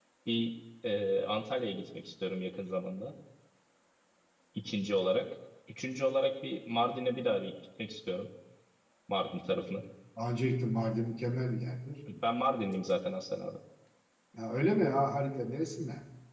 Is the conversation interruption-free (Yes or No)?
Yes